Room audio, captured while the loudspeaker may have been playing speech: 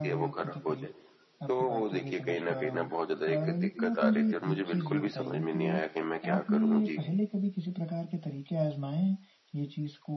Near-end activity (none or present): present